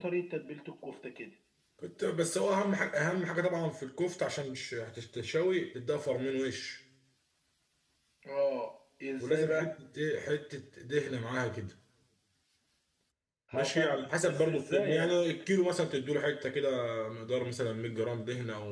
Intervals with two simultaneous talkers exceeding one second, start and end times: 13.5-15.2

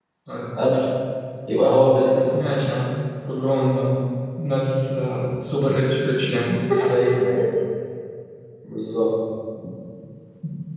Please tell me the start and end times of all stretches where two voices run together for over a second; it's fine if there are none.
none

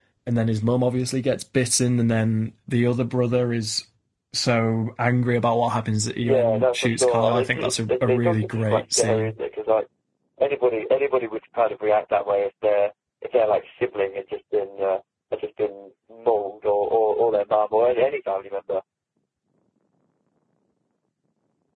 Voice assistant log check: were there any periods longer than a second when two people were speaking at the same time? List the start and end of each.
6.2-9.3

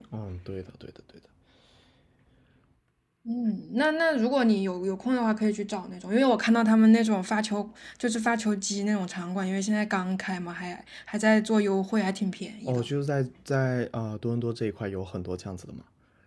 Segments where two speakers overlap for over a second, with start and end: none

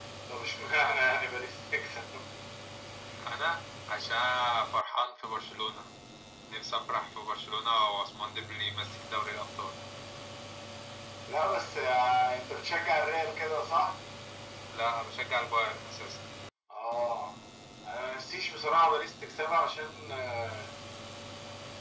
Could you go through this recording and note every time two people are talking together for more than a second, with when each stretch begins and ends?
none

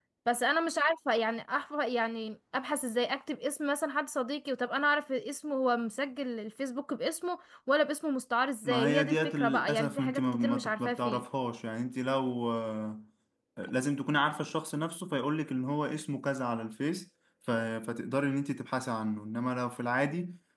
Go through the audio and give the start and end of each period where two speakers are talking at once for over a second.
8.6-11.2

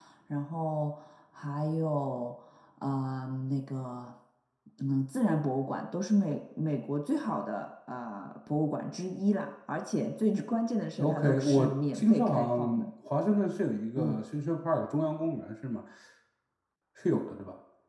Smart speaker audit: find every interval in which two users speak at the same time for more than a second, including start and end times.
11.0-12.8

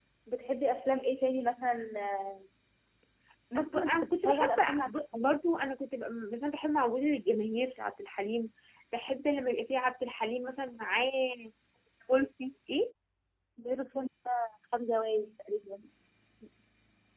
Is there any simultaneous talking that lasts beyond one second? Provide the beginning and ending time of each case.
3.6-5.3

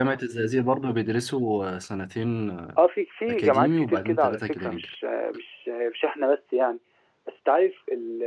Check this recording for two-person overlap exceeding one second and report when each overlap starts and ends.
3.3-5.0

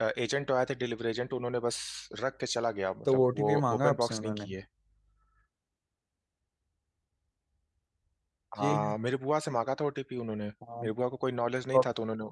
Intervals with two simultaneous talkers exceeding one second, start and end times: 3.0-4.5

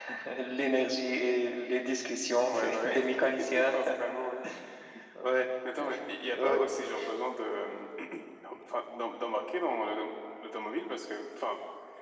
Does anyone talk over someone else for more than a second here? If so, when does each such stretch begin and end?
2.5-3.8

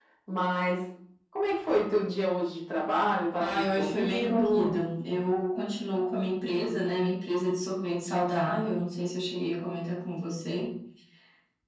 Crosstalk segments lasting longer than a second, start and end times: 3.4-4.8

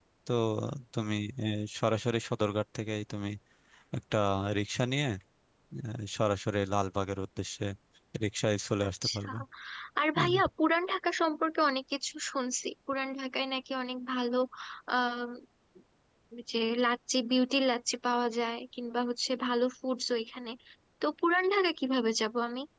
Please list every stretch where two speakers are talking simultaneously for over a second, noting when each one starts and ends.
none

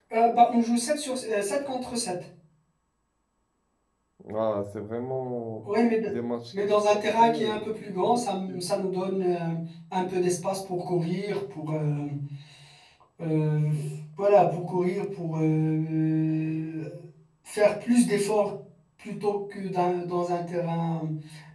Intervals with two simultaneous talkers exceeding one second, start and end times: 6.5-8.2

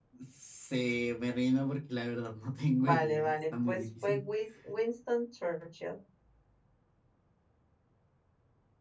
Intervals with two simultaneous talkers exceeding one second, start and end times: 2.8-4.2

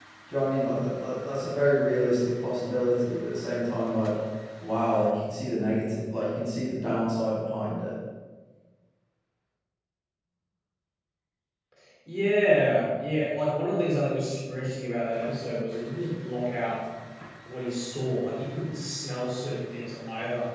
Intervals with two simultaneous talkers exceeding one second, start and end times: none

